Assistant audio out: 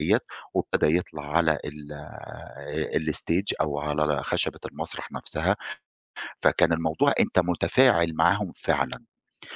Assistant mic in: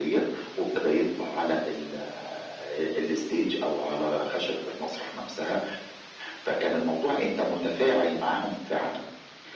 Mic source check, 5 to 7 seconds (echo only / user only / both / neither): echo only